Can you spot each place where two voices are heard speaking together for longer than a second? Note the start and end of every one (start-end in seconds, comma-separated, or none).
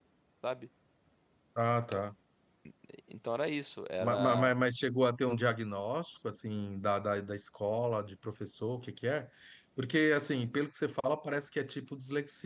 none